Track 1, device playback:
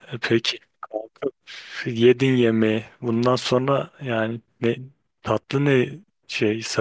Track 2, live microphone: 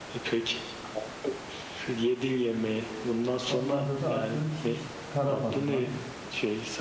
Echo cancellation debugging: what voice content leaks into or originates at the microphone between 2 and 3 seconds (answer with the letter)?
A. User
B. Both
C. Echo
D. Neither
C